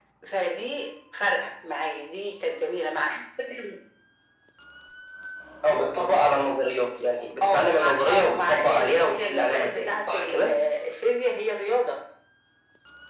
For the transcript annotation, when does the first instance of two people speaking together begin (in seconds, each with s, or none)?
7.4 s